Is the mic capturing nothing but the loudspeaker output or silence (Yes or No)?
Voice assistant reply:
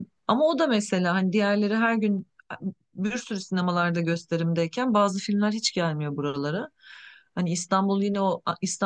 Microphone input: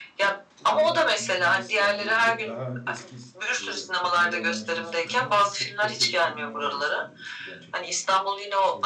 No